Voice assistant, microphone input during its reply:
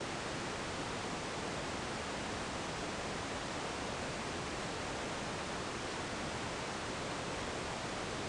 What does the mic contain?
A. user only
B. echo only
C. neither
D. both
C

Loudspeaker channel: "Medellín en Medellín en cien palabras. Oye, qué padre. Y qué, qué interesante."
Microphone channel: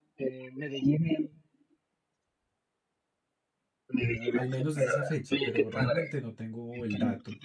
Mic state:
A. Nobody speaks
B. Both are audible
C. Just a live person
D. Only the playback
B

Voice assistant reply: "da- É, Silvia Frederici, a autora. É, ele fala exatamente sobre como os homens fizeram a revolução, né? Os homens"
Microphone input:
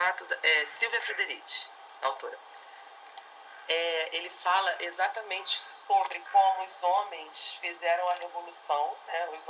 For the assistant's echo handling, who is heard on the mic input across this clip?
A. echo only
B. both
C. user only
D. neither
A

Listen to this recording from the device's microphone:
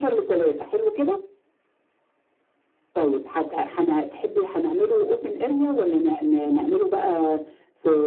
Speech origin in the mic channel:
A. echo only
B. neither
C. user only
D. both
A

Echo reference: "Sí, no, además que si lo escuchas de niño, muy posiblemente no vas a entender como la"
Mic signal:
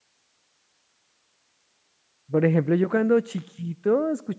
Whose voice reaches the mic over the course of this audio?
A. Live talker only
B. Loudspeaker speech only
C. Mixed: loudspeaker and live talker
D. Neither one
A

